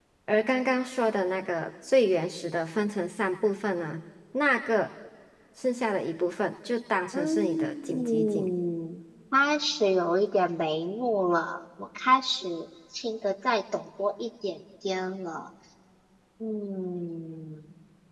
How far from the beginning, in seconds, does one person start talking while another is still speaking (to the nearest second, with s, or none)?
7 s